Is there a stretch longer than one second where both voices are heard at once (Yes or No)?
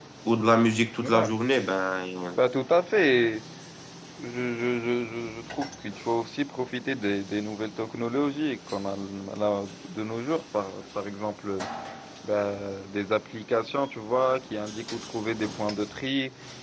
No